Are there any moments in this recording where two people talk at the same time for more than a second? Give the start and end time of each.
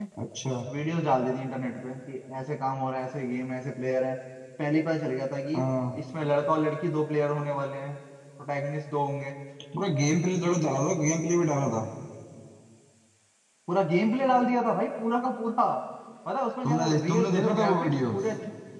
16.6-18.1

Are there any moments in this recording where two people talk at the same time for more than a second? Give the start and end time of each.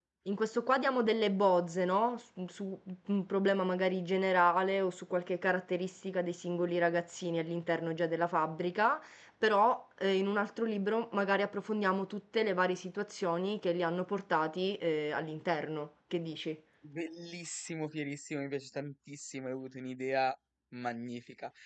none

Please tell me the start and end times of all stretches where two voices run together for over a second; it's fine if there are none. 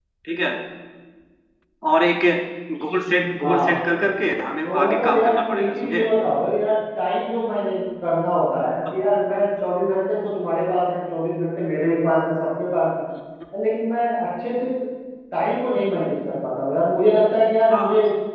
4.6-6.1

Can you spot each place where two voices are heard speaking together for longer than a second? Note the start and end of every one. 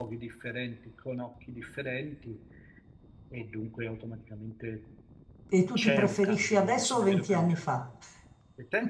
5.8-7.6

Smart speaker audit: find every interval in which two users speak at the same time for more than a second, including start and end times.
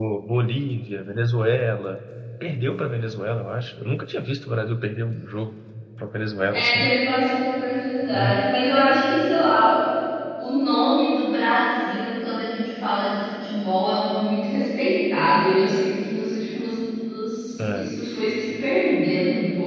none

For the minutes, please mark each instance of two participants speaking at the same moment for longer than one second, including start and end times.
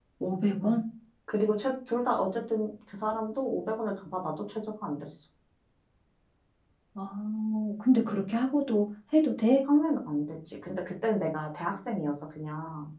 none

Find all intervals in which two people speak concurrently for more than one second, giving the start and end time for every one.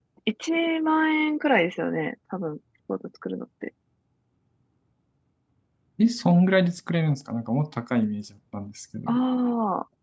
none

